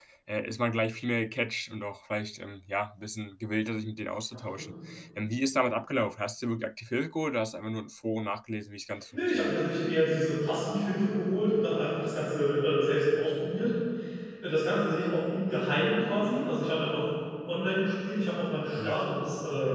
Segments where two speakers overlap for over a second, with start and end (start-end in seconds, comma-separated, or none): none